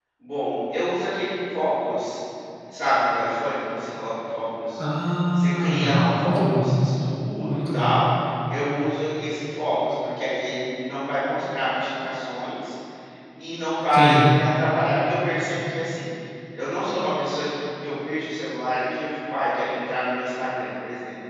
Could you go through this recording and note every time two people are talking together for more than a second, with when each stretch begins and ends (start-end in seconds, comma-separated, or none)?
5.3-6.7